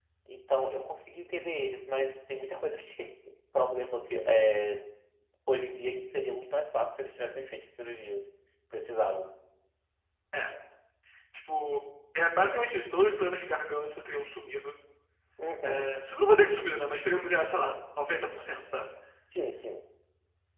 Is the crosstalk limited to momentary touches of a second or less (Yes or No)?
Yes